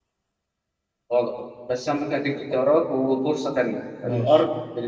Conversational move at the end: listening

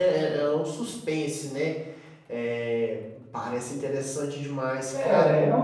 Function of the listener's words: taking over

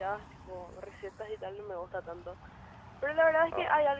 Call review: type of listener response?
listening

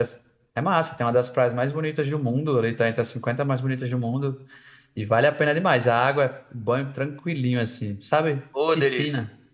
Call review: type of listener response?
taking over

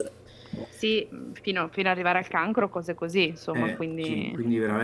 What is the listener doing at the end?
taking over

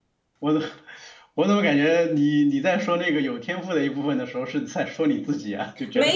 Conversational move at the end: taking over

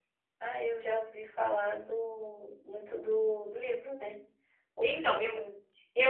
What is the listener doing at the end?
taking over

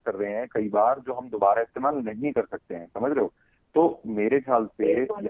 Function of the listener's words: listening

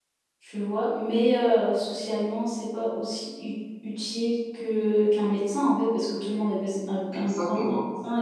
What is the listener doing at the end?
listening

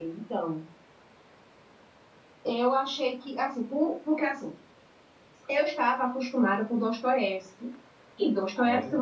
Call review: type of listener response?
listening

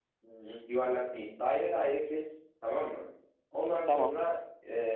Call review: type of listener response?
listening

